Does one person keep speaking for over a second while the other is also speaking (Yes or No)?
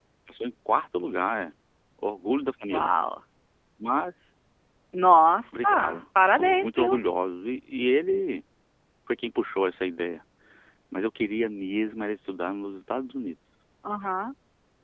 Yes